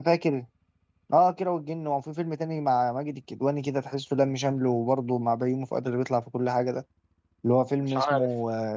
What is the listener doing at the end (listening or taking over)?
listening